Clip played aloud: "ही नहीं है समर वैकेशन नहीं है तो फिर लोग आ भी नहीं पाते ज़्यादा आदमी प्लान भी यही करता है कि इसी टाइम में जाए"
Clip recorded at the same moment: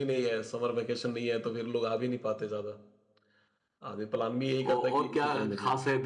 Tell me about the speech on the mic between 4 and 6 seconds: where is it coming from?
both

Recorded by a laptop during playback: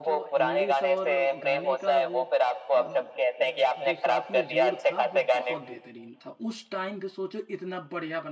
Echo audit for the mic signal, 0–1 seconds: both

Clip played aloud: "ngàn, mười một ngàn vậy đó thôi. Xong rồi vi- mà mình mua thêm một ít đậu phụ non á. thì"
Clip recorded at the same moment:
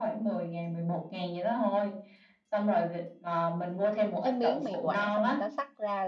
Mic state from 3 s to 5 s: both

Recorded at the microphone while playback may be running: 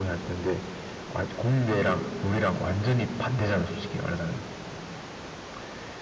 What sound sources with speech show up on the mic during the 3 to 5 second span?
echo only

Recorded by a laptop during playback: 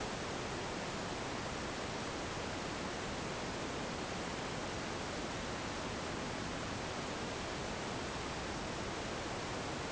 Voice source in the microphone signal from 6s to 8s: neither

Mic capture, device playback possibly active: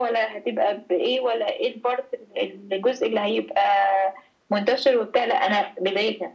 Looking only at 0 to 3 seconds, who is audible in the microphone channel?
echo only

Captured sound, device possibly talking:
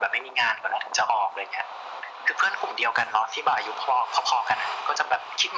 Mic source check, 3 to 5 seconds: echo only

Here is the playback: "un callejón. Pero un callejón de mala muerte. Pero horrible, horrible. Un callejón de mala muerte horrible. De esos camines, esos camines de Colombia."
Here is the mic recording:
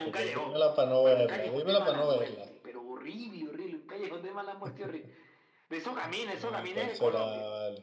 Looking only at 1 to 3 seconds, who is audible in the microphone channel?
both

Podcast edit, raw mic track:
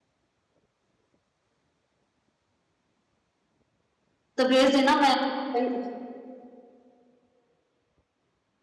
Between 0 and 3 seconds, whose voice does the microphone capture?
neither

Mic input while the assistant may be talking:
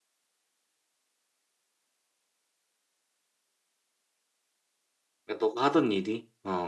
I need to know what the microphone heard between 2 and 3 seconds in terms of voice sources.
neither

